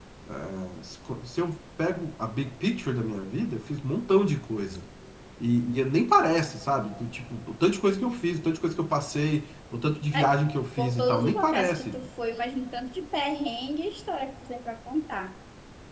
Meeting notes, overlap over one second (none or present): present